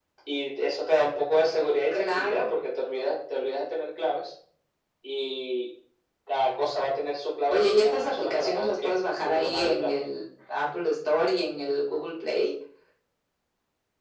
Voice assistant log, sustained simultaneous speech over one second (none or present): present